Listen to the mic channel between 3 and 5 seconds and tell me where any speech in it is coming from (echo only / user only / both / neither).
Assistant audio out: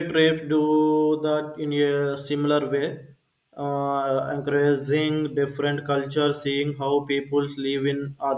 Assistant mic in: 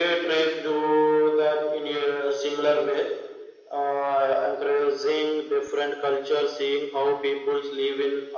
echo only